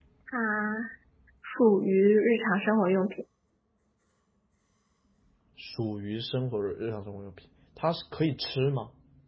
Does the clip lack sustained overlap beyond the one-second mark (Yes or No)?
Yes